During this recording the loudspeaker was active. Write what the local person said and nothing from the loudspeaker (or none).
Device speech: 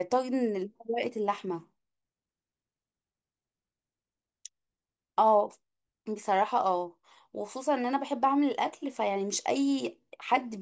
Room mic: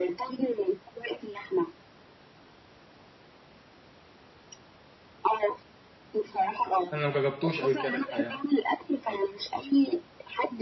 انا ما جربتوش قبل كده الحقيقه